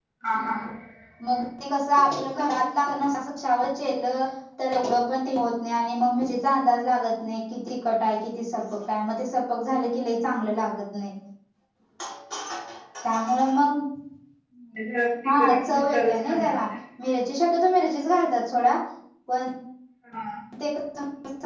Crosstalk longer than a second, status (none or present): present